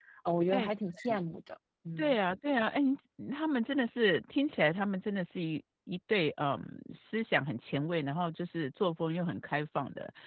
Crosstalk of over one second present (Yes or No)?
No